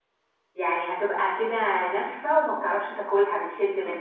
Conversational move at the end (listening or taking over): taking over